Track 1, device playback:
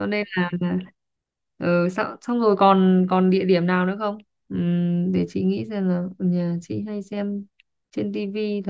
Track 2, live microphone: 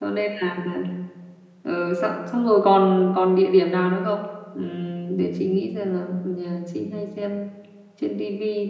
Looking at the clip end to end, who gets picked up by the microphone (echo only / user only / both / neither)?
echo only